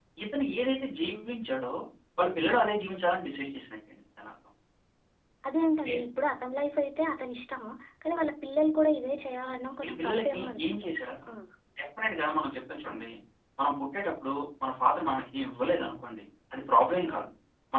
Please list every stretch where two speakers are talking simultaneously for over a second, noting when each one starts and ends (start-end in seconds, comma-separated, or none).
9.8-11.3